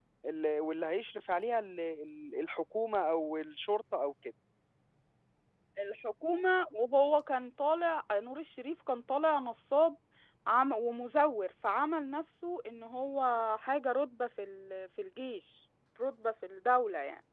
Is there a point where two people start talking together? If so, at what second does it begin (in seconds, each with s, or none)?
none